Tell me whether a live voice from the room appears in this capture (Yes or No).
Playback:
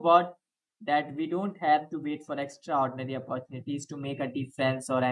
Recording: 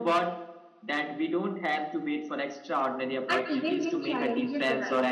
Yes